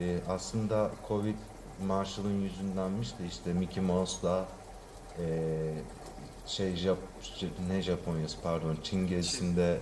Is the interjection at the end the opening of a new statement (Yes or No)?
No